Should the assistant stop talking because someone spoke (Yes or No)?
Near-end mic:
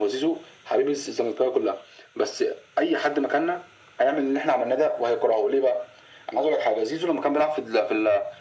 No